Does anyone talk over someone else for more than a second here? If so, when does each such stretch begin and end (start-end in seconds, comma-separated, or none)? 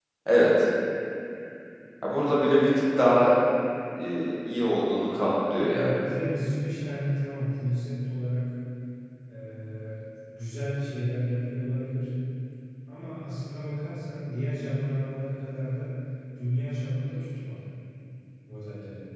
none